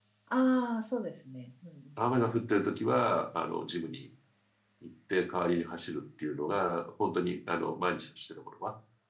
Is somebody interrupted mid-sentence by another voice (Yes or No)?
No